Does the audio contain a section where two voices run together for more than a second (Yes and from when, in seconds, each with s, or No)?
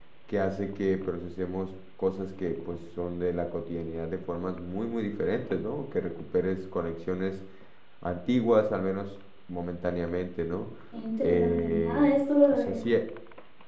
Yes, from 11.2 s